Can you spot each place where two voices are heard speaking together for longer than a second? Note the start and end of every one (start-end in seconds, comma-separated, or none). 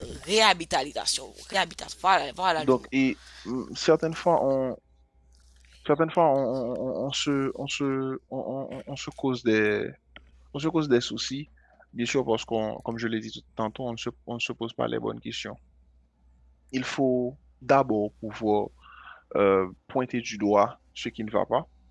none